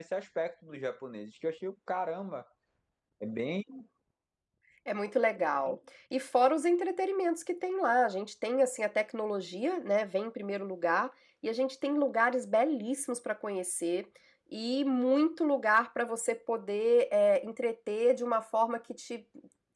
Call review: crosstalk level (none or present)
none